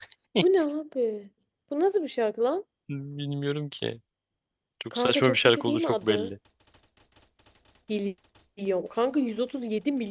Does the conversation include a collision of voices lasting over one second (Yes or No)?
Yes